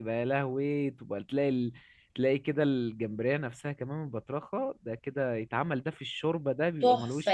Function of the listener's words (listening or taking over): taking over